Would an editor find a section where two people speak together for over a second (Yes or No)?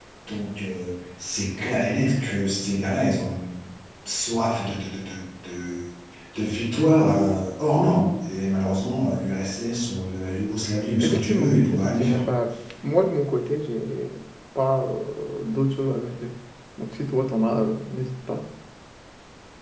Yes